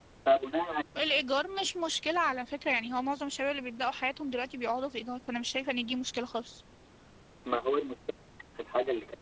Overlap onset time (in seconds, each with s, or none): none